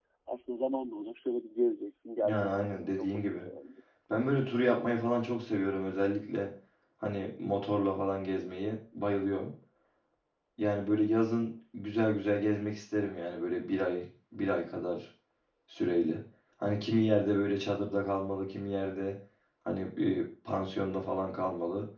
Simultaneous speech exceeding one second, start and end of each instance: 2.2-3.5

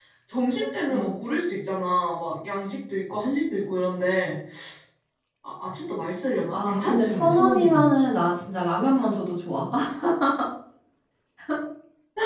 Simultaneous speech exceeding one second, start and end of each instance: 6.5-7.9

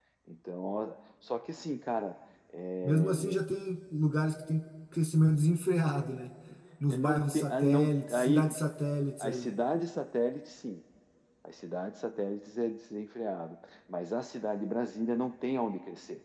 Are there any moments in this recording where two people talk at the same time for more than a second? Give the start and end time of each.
6.9-8.5

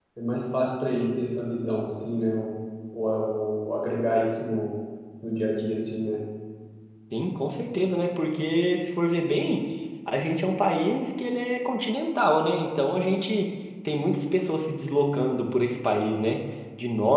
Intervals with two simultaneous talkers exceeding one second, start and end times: none

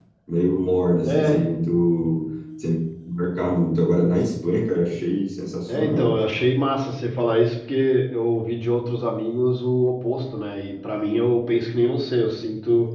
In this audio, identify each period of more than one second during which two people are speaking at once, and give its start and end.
none

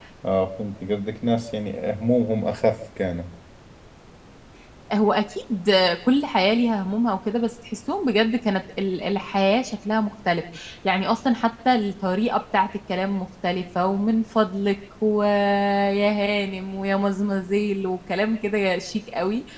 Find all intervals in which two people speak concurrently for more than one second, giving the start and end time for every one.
none

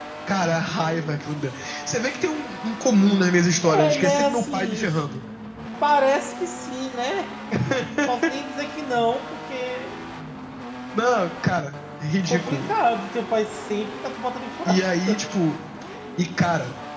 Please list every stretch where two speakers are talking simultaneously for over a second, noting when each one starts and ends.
3.6-4.8

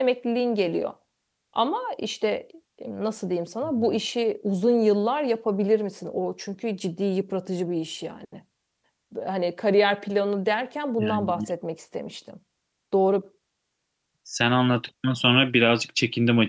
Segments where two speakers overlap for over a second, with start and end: none

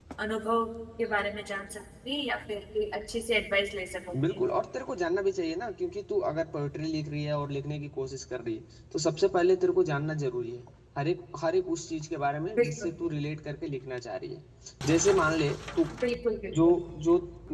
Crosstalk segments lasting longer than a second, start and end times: none

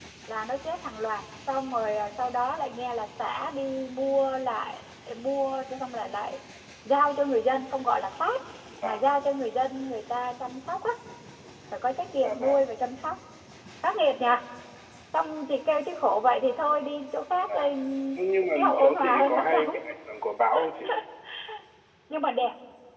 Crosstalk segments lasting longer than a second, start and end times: 18.6-19.8

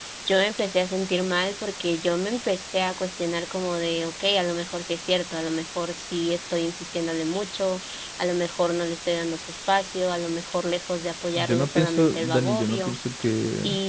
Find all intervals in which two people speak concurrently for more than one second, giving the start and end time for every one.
11.3-12.9

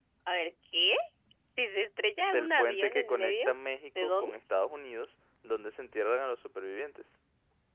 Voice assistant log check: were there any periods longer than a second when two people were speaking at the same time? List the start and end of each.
2.2-3.5

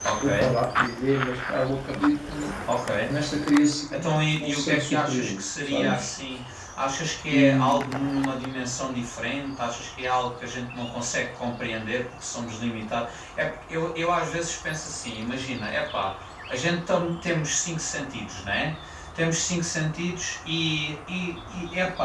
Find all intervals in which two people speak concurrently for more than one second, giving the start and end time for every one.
3.9-6.1

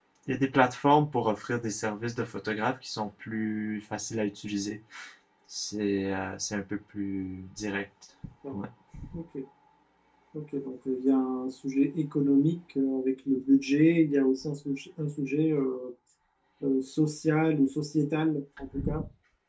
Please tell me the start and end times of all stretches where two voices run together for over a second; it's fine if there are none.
none

